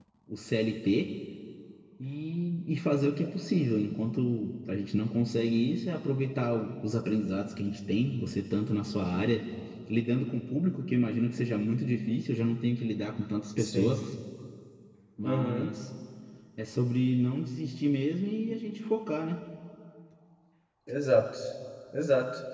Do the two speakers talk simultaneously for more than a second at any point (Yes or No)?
No